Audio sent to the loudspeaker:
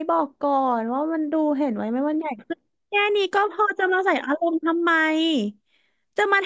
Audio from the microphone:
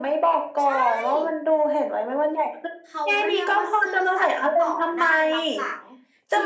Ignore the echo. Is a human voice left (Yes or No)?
Yes